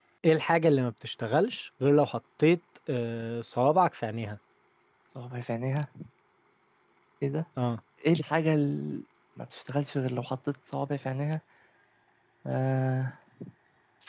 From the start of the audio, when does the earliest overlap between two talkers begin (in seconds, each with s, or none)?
none